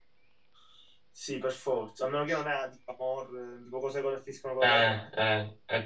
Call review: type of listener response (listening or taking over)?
taking over